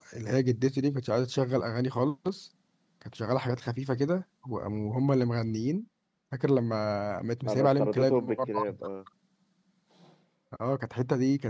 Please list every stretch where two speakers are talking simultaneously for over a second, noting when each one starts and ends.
7.5-8.8

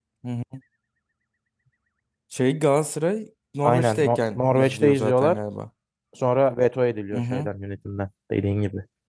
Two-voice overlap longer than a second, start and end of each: 3.6-5.4

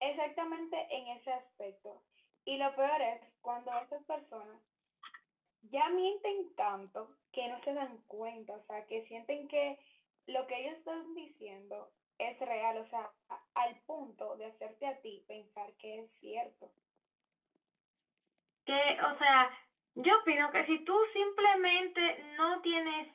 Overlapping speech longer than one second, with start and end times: none

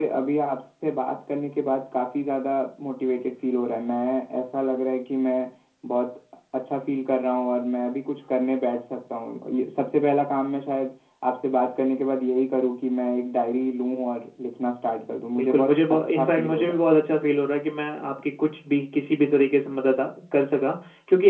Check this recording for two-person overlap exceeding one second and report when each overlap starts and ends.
15.4-16.8

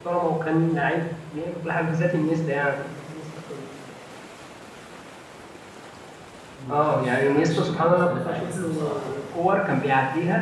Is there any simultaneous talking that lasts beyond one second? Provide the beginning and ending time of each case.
6.7-9.2

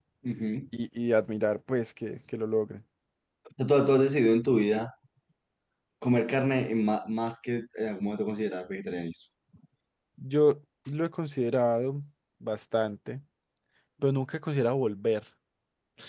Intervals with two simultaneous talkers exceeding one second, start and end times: none

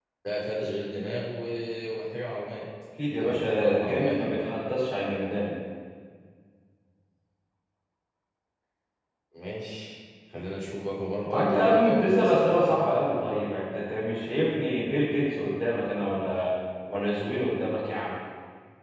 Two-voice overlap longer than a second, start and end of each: 3.2-4.5, 11.2-12.8

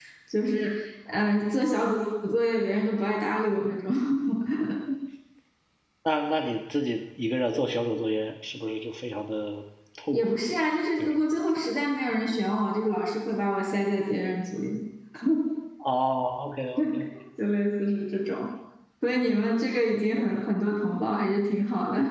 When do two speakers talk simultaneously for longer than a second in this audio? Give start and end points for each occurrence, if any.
none

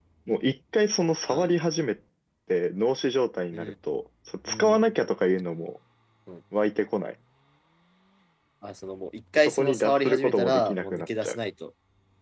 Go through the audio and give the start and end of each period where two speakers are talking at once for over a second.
9.3-11.4

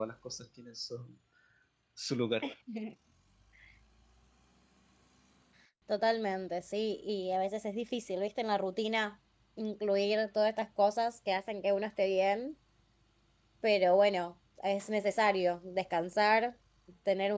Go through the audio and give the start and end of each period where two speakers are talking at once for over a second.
none

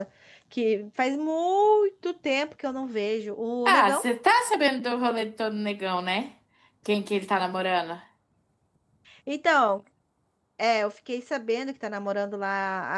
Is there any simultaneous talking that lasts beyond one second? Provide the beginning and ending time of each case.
none

